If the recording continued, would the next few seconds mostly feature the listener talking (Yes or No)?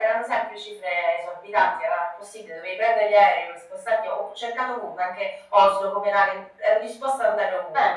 No